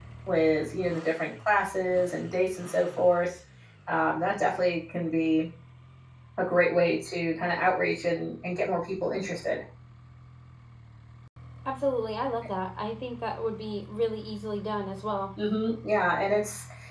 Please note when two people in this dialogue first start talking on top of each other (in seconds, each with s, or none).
none